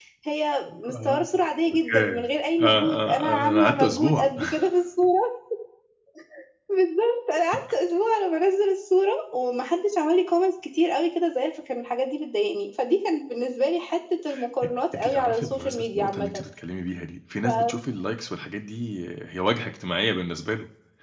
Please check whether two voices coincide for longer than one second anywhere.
Yes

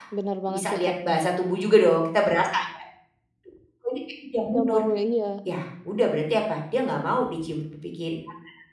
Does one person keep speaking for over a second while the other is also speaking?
No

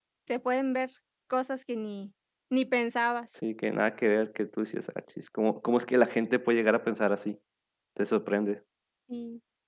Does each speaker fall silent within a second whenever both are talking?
Yes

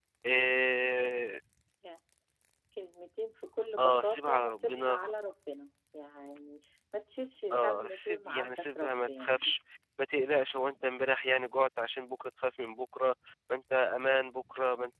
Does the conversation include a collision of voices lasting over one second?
Yes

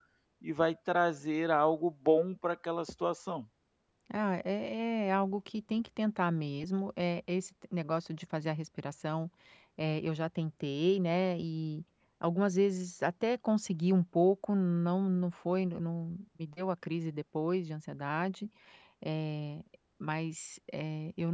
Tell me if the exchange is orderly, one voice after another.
Yes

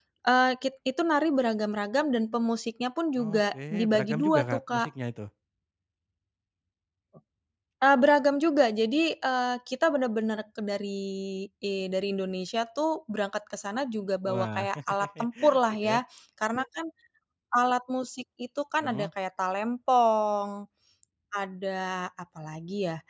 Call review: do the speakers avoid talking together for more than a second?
No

